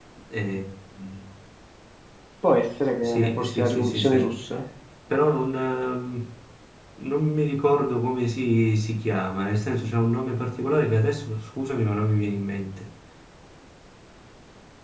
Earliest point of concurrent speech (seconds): 3.0 s

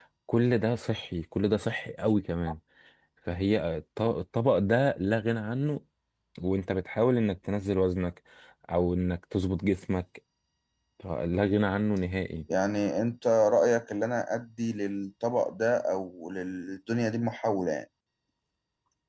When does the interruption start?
none

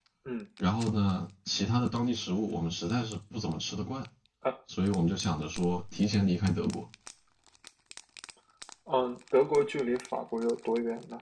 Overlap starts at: none

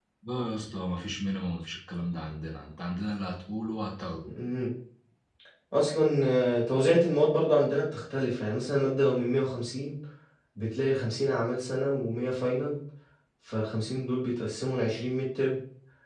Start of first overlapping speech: none

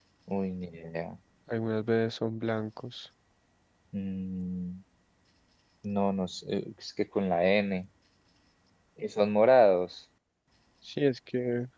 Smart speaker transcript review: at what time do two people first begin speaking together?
none

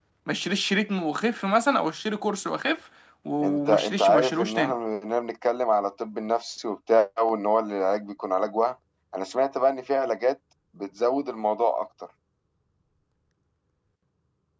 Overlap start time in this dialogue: 3.4 s

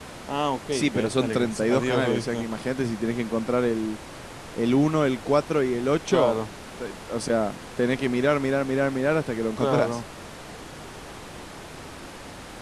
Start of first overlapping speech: 0.7 s

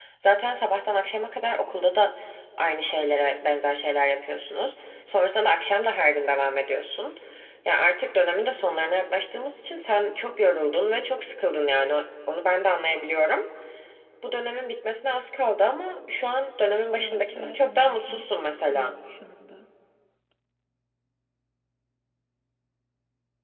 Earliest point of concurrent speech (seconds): 17.0 s

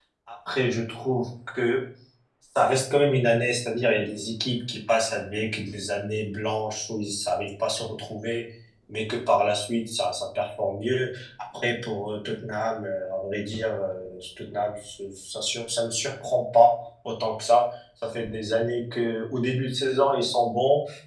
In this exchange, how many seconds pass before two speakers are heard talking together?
none

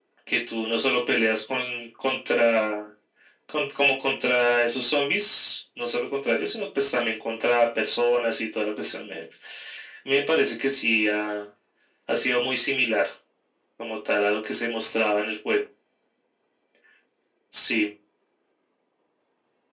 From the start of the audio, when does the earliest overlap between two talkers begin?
none

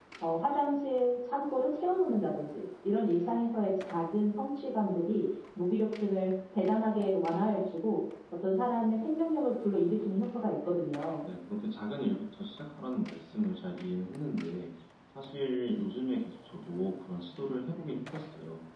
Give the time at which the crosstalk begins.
none

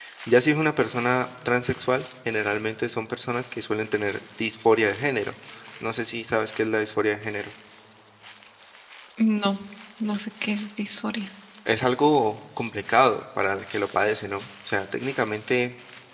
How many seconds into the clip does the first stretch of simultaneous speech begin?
none

